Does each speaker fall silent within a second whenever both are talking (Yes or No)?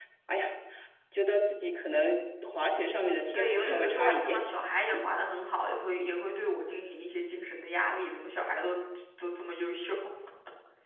No